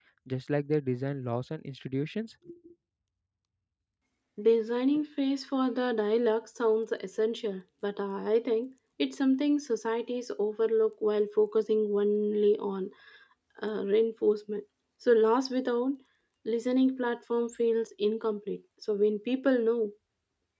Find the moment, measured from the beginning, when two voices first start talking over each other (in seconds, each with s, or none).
none